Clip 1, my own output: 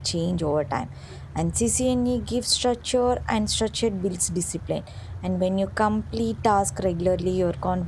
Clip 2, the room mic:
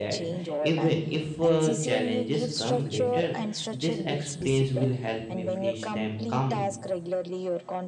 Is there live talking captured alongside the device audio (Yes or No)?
Yes